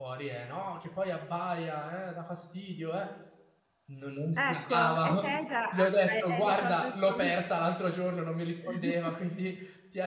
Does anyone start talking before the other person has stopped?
Yes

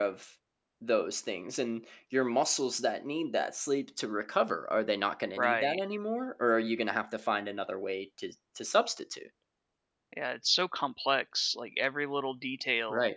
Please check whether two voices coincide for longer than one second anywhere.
No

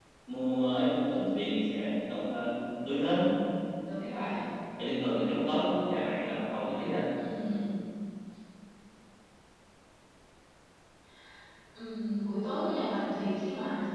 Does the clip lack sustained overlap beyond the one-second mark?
Yes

